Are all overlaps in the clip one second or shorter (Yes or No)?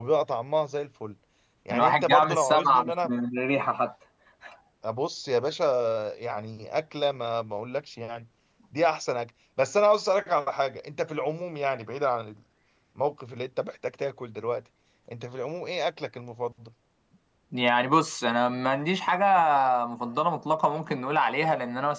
No